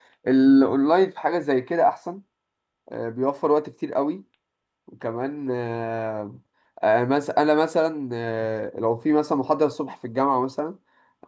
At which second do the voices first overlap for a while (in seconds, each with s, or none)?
none